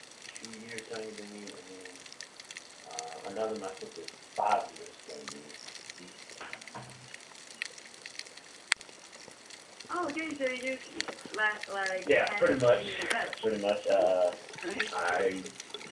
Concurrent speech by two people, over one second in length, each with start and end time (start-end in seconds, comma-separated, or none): 12.1-13.5